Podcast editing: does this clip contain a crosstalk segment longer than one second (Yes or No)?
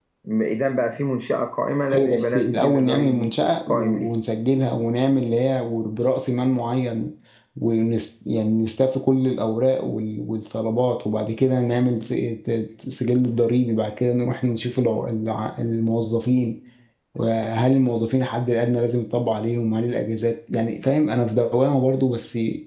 Yes